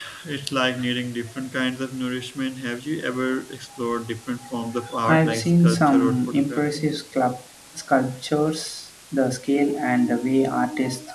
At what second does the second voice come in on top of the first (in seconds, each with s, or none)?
5.1 s